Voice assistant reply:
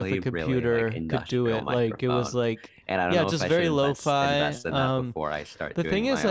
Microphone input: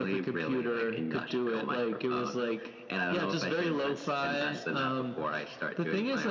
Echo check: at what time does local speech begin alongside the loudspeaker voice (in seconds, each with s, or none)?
none